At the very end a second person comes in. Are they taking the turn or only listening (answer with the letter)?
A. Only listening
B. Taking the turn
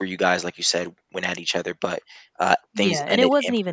B